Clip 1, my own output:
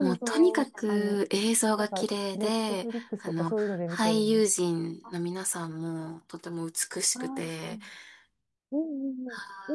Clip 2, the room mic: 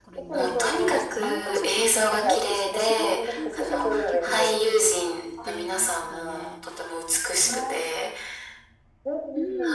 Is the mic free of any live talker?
No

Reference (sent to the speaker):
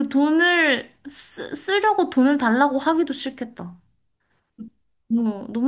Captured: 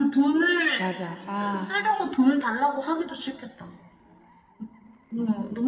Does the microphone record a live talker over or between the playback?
Yes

